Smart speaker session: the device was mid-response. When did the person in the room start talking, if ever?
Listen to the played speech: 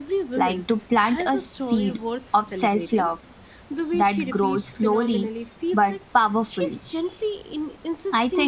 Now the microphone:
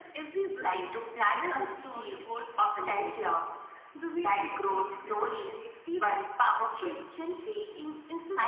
none

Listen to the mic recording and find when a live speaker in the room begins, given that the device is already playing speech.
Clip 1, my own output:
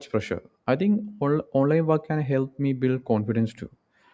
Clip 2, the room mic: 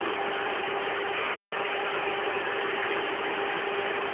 none

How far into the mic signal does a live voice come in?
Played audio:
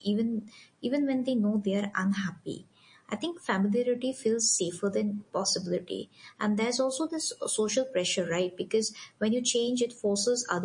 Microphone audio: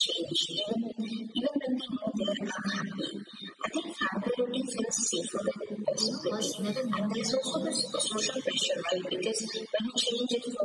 5.9 s

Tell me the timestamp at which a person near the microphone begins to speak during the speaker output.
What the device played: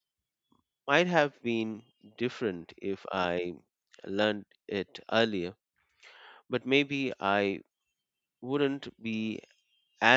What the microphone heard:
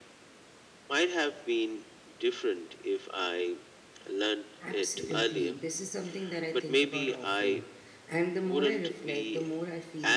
4.6 s

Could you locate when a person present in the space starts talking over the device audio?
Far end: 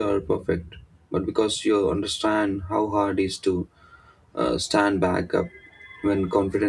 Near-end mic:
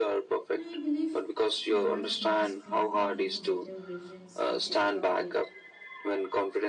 0.5 s

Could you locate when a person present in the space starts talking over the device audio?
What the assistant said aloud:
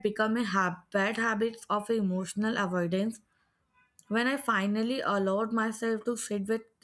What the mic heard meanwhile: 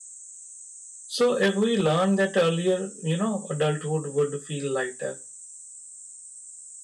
1.2 s

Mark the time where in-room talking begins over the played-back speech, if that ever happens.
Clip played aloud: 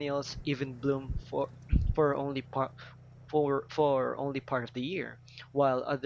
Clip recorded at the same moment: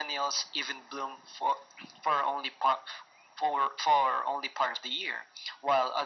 none

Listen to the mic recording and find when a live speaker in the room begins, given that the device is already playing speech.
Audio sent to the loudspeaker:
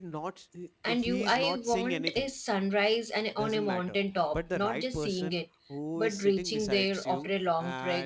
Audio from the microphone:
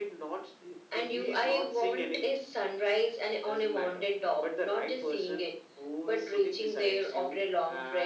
none

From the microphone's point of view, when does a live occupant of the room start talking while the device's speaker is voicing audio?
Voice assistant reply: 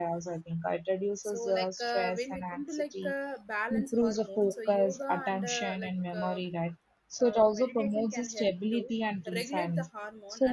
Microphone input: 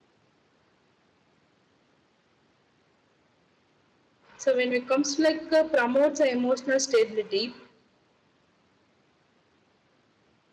4.4 s

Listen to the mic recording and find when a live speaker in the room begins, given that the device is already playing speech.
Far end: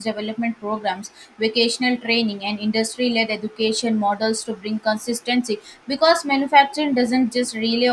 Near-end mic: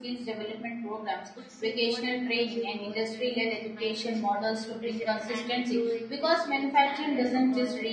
1.3 s

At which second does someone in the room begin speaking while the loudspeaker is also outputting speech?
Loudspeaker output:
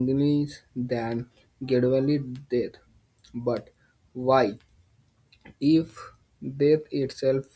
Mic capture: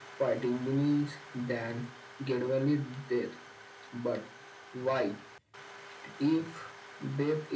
none

